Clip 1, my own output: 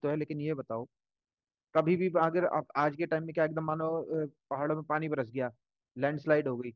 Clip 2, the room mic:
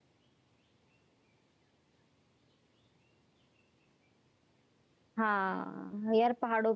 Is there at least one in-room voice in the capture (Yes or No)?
Yes